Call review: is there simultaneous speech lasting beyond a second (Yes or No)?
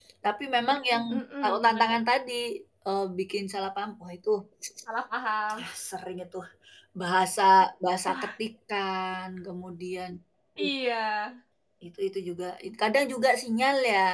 No